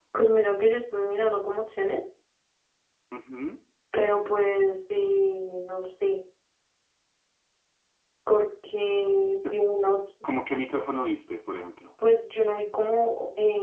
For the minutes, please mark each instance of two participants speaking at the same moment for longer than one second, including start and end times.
none

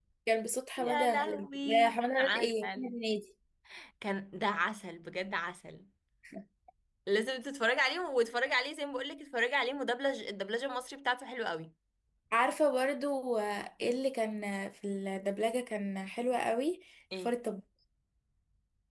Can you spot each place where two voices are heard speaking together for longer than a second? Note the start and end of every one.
0.8-2.9

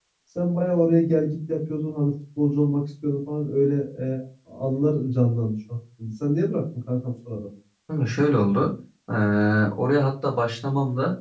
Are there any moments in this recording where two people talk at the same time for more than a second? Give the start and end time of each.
none

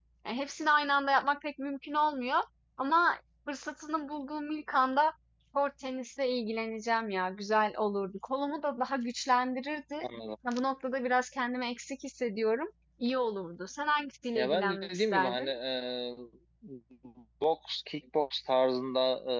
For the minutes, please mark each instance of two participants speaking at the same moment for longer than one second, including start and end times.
14.3-15.6

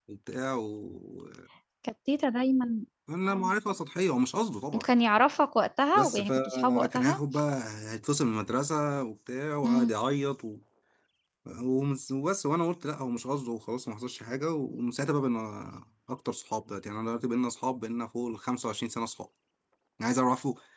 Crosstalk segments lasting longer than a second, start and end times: 6.0-7.2

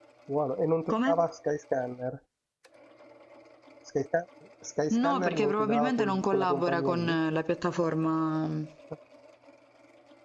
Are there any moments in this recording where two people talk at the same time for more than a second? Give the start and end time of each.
4.9-7.2

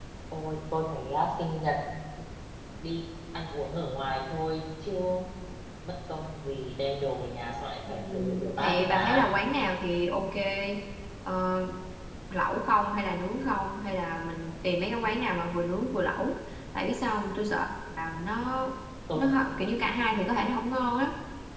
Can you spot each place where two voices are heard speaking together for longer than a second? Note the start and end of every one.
7.9-9.3

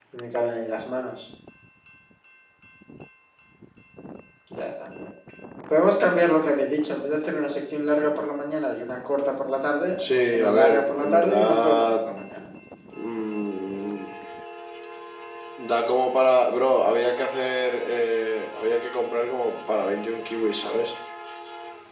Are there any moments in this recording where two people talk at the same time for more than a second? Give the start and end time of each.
10.0-12.0

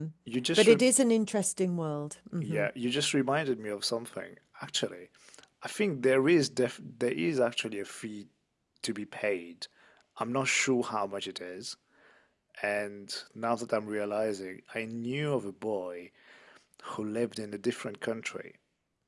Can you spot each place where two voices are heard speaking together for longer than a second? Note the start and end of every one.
none

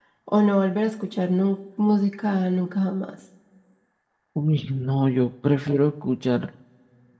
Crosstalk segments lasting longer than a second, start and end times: none

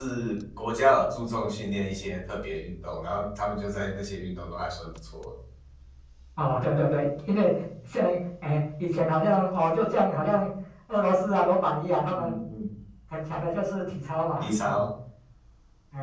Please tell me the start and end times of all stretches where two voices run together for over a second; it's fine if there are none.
none

